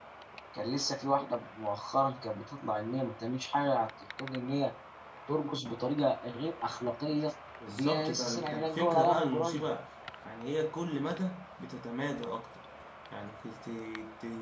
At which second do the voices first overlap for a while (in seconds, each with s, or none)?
7.7 s